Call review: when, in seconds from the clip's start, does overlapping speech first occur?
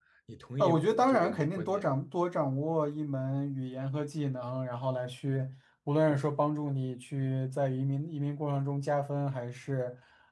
1 s

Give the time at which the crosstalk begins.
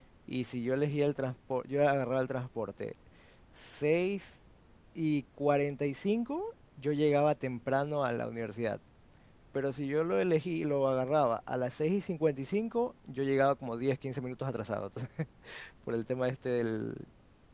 none

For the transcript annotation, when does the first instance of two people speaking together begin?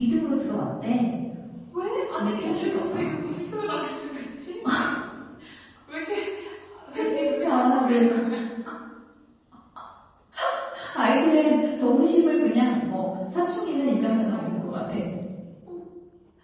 2 s

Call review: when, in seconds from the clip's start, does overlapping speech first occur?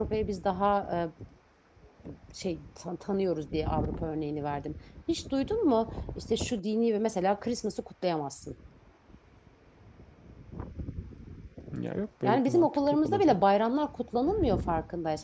12 s

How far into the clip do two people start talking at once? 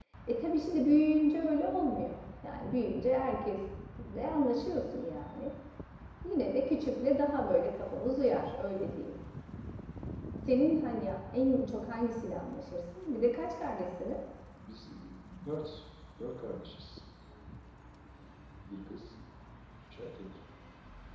none

